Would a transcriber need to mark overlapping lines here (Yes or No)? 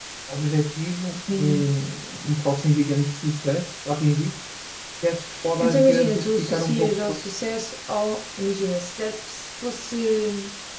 Yes